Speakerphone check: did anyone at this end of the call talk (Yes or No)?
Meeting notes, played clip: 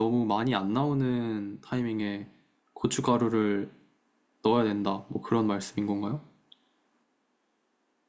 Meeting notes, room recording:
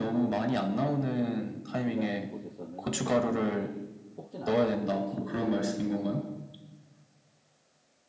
Yes